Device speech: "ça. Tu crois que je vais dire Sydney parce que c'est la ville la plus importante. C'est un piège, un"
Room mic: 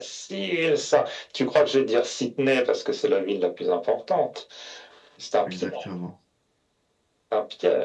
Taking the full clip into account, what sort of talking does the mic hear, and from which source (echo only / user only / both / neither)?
both